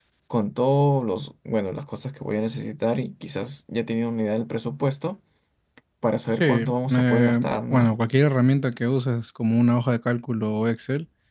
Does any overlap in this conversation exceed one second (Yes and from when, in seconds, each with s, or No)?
Yes, from 6.4 s